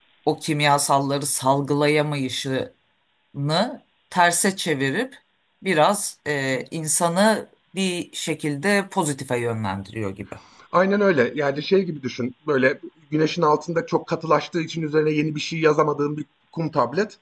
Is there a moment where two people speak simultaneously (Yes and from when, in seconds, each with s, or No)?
No